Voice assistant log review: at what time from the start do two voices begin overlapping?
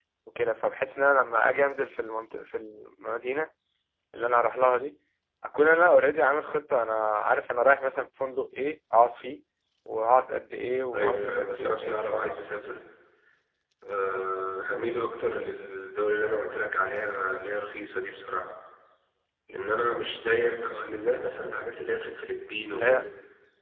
10.9 s

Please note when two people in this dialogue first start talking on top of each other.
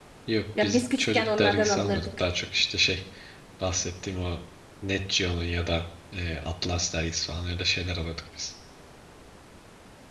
0.6 s

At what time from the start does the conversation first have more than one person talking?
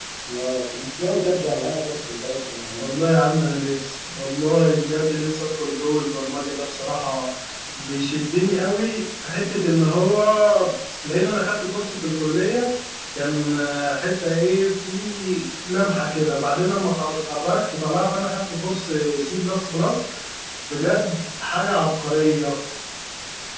none

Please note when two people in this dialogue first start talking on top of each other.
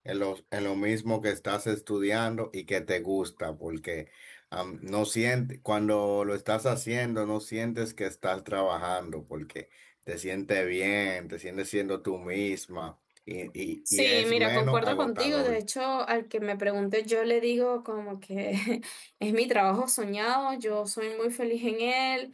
13.8 s

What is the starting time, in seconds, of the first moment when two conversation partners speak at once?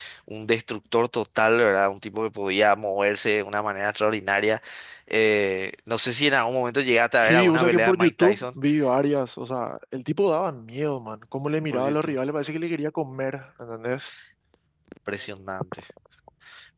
7.2 s

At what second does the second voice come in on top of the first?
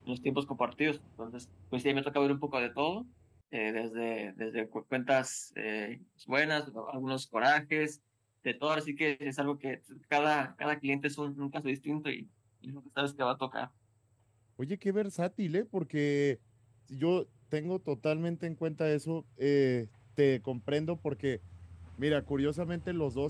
none

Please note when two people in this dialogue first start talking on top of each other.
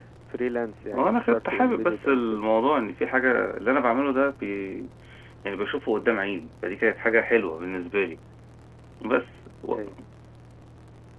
0.9 s

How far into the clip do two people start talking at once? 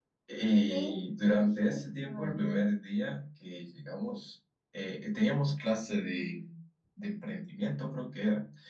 0.7 s

